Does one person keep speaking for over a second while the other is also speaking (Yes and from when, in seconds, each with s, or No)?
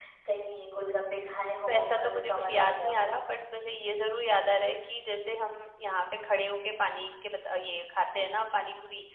Yes, from 1.7 s